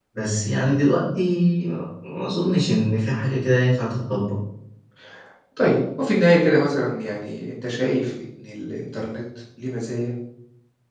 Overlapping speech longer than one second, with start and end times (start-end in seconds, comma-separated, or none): none